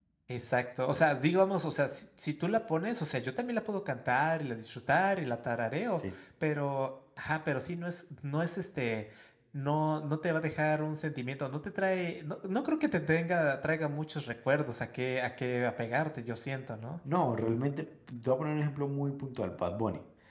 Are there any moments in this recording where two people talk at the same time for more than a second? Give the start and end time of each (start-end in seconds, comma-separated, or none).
none